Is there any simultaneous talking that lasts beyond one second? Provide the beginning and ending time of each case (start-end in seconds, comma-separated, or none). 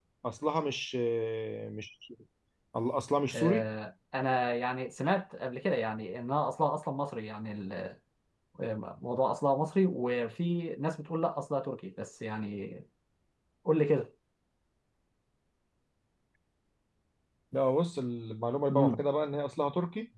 none